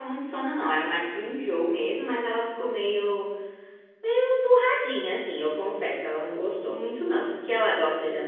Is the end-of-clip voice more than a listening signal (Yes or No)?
No